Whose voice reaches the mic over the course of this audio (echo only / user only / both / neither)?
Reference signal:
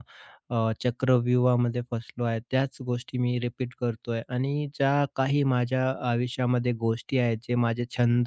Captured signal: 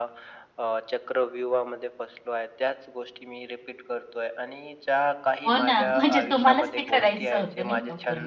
both